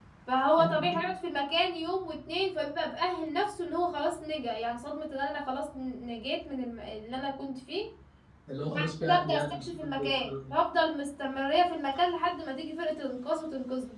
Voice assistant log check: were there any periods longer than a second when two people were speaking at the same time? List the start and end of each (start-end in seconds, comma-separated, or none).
8.7-10.5